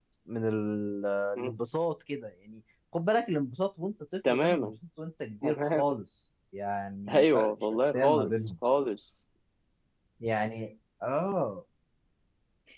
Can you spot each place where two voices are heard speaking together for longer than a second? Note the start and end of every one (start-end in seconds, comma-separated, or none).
7.1-8.3